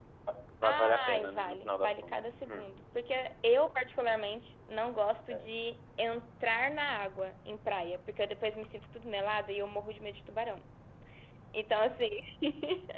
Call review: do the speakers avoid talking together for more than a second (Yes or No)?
No